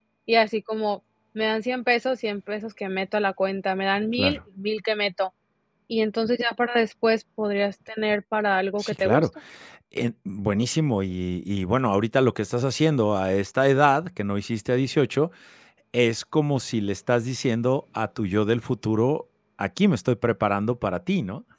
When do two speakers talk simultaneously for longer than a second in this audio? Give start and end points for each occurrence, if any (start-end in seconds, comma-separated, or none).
none